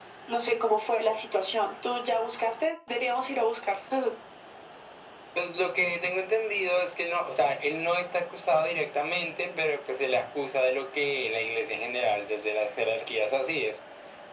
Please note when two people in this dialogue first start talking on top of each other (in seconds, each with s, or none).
none